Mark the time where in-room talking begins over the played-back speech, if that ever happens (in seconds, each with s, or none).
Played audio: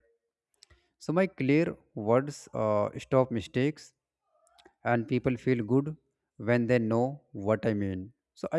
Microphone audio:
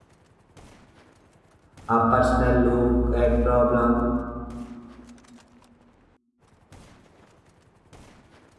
1.9 s